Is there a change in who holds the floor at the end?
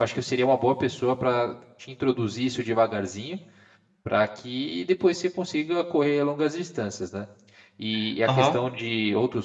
No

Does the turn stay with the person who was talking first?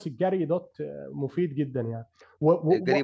No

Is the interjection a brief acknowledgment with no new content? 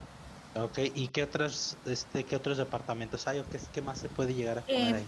No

